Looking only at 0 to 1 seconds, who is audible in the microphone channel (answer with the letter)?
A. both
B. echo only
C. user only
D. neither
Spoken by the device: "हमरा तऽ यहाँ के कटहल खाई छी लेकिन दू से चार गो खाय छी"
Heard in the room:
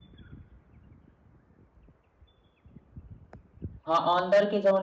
D